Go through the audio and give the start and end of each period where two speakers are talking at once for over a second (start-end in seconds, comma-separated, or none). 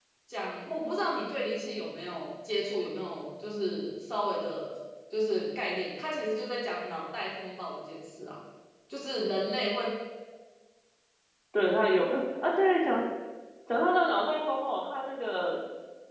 none